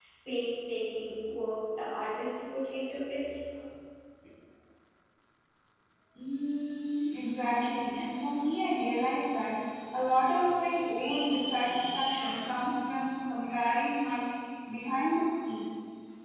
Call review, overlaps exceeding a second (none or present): none